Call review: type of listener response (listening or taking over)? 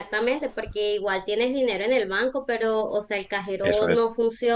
listening